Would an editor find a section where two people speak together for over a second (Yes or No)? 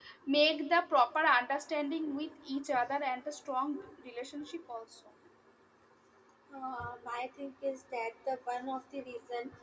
No